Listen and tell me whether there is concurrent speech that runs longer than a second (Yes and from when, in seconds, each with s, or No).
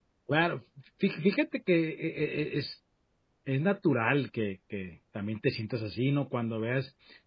No